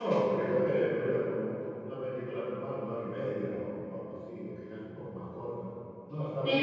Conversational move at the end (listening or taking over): taking over